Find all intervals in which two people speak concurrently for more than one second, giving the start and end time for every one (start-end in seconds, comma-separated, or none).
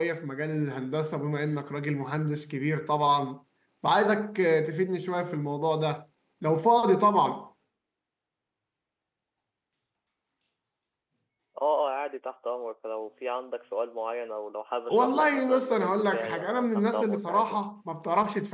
14.9-17.6